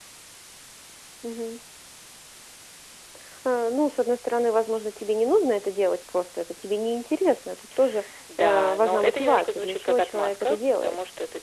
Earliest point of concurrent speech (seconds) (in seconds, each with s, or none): 8.3 s